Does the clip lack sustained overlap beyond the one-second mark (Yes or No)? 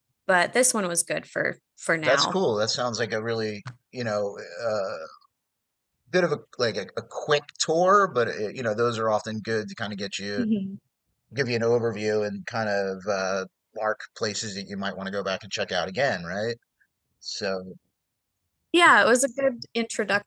Yes